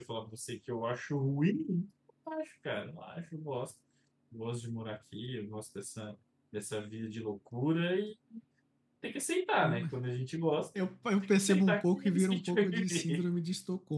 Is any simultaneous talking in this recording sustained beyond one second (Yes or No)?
Yes